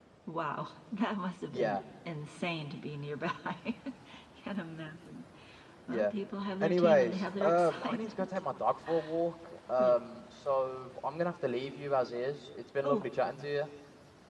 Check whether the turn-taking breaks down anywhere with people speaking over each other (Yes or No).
Yes